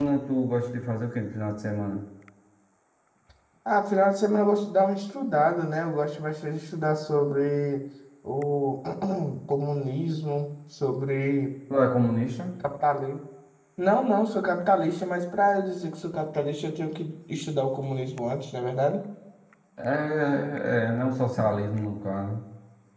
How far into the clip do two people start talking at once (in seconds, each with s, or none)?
none